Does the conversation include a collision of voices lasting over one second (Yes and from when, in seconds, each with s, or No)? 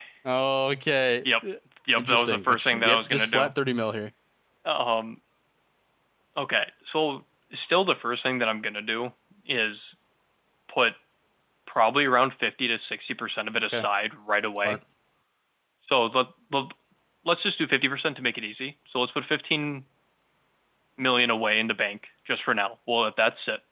Yes, from 2.0 s